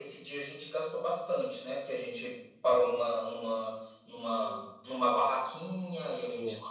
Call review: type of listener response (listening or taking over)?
listening